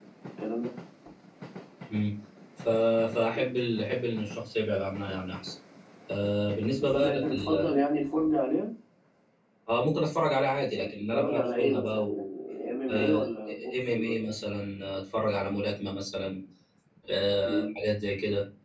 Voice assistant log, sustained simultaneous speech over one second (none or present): present